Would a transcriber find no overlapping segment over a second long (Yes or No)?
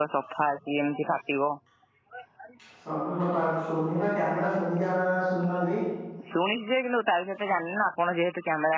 Yes